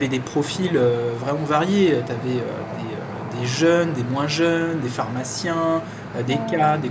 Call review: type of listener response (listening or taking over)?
listening